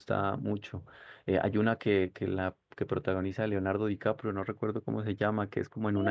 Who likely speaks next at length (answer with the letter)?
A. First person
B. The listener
B